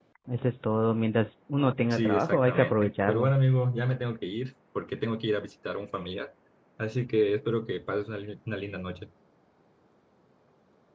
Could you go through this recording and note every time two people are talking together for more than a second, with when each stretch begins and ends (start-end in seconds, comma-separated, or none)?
1.9-3.3